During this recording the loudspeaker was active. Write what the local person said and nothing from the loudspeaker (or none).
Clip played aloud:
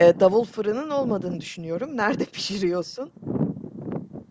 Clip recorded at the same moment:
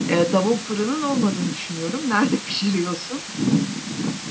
none